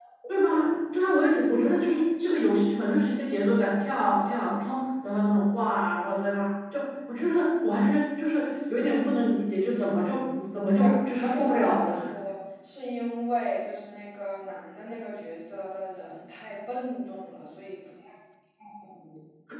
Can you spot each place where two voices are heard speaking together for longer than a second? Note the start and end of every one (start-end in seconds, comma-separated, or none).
10.8-12.0